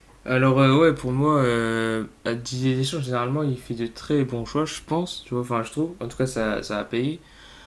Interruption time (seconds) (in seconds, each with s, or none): none